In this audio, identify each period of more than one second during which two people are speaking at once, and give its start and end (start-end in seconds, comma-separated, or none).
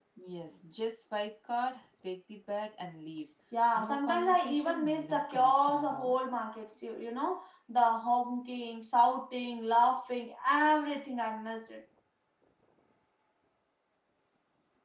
3.8-6.1